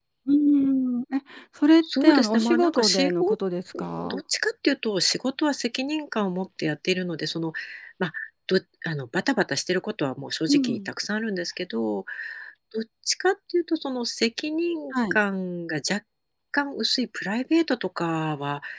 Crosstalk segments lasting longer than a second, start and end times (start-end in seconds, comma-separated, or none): 1.8-3.4